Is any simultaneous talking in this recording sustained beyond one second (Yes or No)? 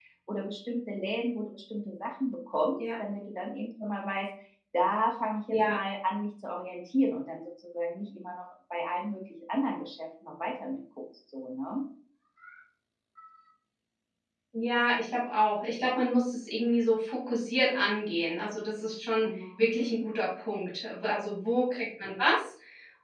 No